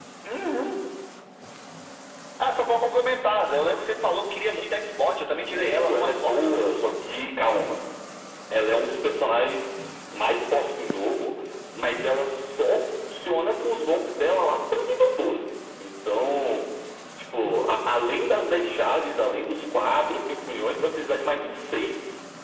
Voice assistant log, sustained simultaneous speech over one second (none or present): present